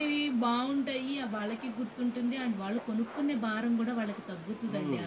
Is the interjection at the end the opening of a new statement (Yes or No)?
Yes